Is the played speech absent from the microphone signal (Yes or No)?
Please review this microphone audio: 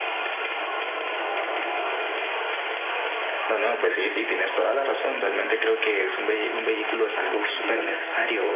No